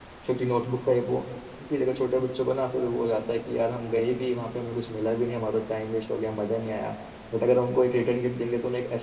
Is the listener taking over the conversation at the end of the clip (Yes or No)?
No